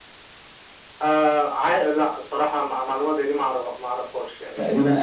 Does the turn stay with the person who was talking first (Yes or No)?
No